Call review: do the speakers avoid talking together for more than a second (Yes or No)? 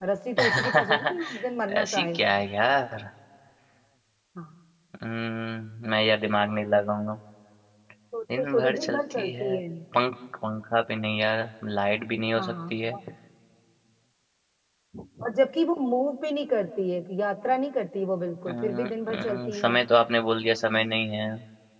No